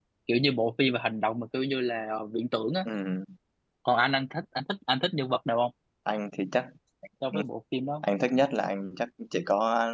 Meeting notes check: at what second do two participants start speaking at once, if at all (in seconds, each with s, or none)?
none